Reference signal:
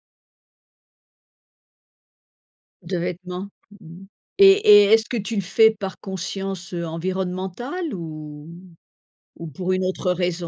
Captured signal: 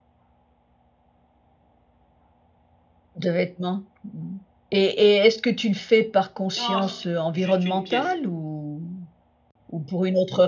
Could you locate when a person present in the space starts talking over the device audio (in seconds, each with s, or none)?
6.5 s